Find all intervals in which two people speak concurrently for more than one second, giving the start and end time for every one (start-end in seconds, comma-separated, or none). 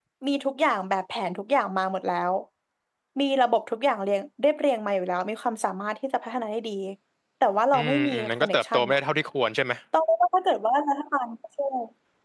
7.7-9.0